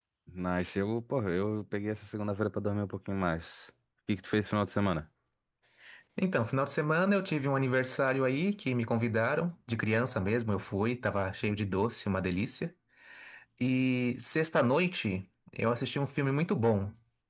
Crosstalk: none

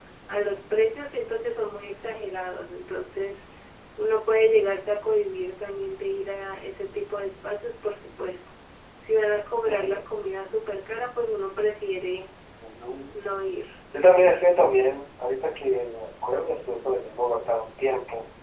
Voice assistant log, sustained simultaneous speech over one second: none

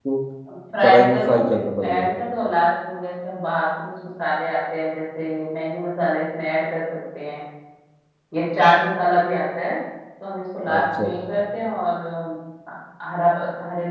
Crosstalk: present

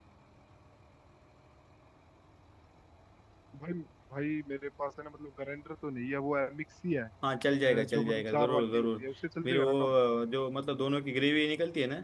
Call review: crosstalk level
present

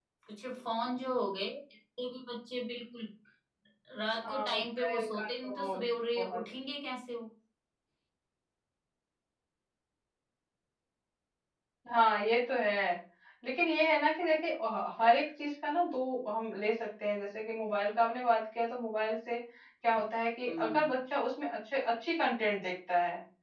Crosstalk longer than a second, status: present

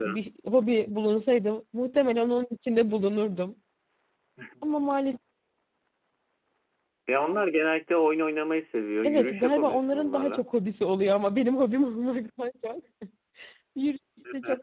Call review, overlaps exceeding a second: present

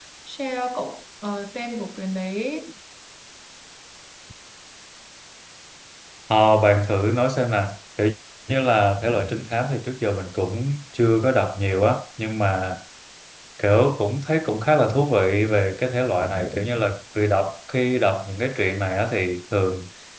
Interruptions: none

